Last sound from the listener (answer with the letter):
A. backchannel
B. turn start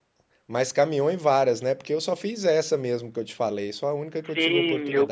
B